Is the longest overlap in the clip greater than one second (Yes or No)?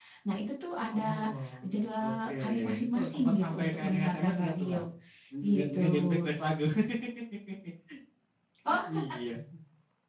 Yes